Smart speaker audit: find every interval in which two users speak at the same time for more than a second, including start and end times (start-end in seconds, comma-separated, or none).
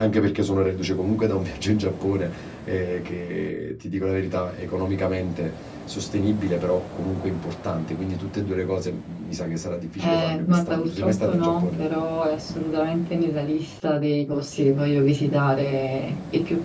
10.0-11.8